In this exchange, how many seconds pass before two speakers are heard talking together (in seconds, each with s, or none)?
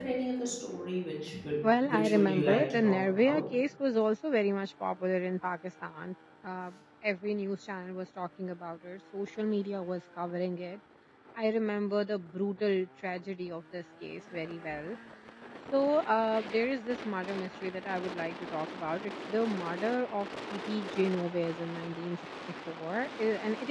1.6 s